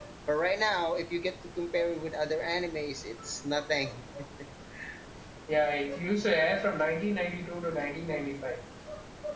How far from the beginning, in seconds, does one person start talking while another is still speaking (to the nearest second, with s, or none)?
none